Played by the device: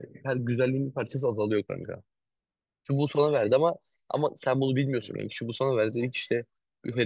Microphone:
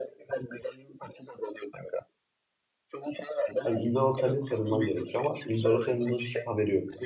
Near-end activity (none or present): present